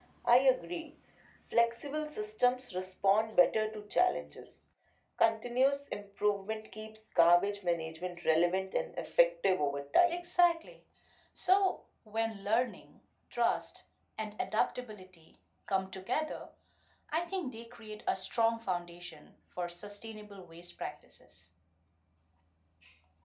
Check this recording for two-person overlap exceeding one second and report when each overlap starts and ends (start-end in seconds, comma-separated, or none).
none